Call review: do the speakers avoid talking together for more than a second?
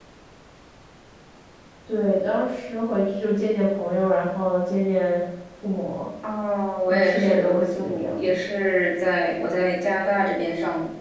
No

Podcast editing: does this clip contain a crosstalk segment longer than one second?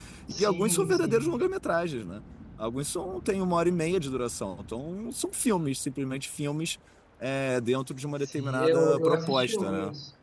Yes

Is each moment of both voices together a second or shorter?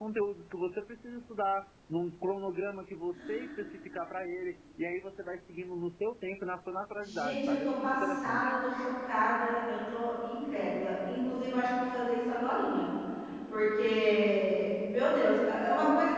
No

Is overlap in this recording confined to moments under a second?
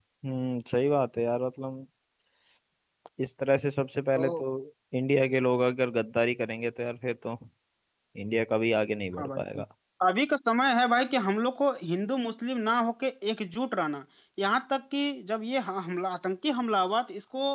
Yes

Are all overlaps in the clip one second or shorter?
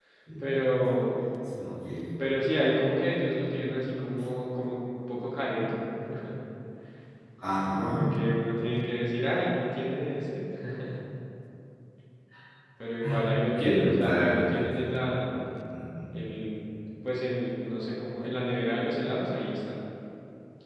No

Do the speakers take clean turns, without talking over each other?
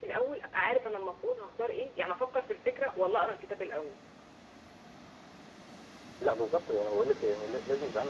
Yes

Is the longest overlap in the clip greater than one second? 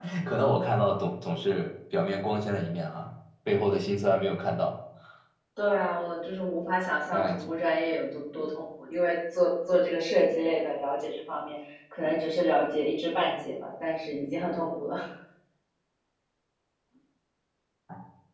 No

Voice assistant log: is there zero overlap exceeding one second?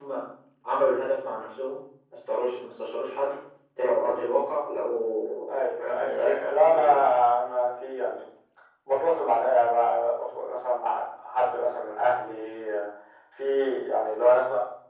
No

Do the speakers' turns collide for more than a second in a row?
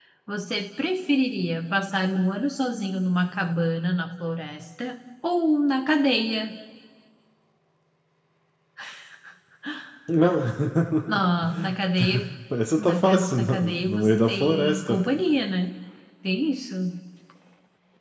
Yes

